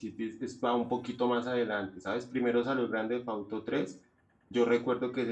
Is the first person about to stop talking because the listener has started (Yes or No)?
No